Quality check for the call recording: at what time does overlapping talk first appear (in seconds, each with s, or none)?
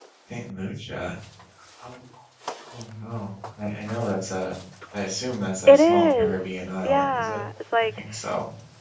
5.7 s